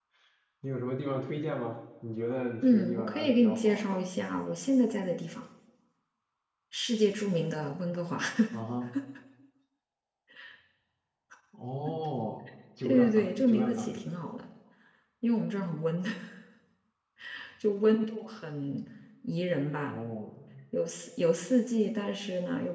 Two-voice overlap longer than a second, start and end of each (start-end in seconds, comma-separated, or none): 2.6-3.8, 12.8-14.1